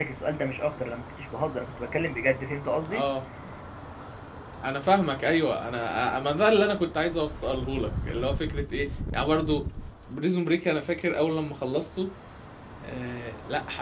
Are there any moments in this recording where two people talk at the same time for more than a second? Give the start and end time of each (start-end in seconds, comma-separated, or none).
none